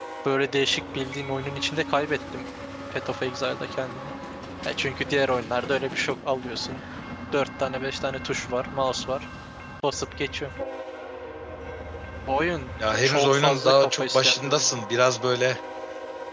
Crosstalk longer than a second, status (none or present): present